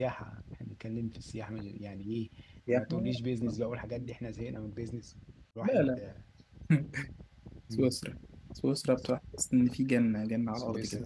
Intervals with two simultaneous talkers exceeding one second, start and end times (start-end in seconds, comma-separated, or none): none